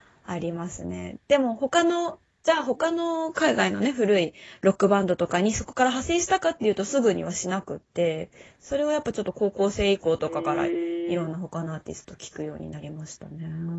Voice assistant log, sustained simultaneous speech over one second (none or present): none